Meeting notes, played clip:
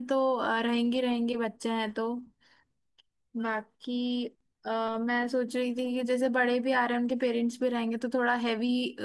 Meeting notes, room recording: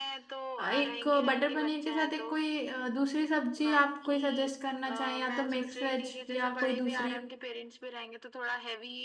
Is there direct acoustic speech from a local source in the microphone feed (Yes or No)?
Yes